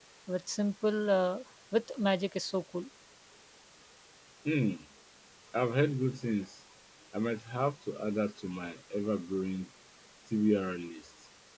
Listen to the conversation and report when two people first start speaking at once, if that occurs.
none

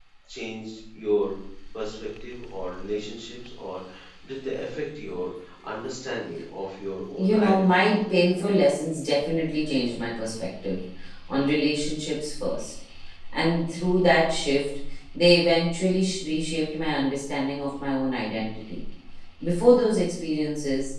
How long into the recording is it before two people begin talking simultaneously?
7.2 s

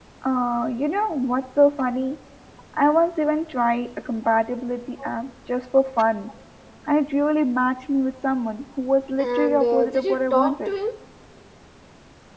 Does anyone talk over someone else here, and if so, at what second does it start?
9.2 s

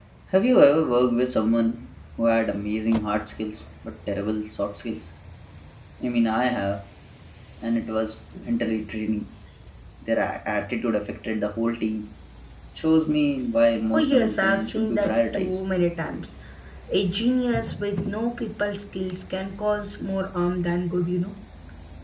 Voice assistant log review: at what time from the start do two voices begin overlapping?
13.9 s

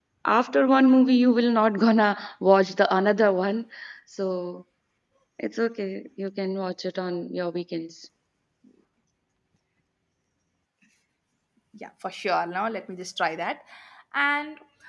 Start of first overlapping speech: none

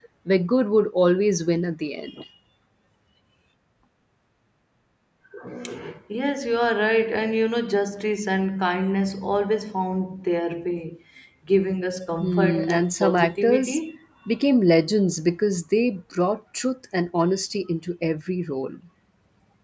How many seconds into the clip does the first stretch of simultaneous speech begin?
12.2 s

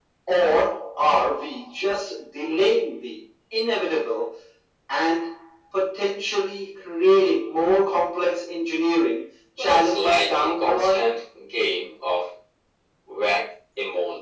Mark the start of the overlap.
9.6 s

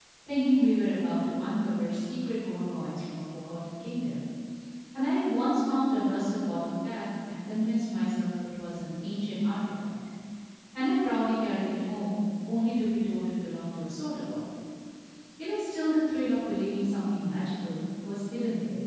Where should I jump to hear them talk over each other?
none

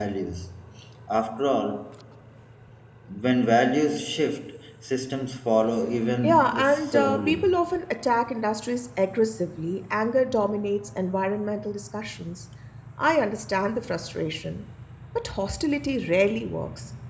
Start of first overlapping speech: 6.2 s

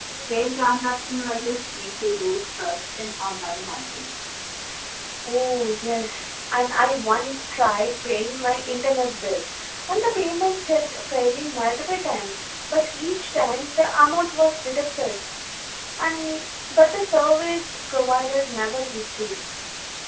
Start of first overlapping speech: none

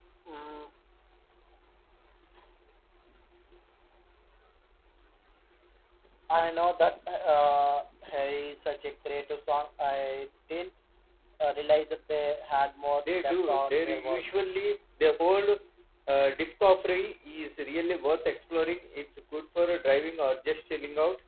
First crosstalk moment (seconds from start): 13.0 s

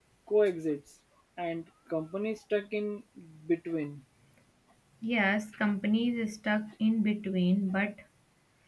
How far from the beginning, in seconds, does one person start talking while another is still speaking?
none

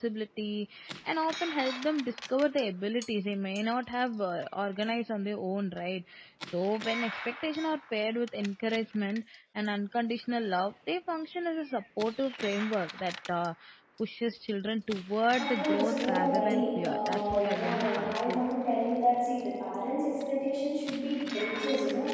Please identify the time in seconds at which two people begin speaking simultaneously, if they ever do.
15.4 s

